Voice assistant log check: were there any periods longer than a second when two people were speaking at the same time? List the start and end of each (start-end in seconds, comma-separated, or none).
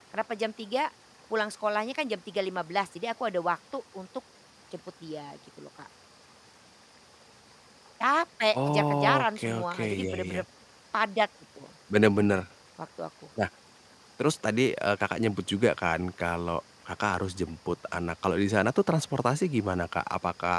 8.7-10.4